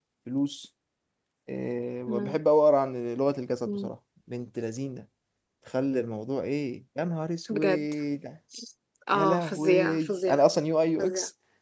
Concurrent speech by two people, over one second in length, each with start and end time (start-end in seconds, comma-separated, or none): 9.1-10.4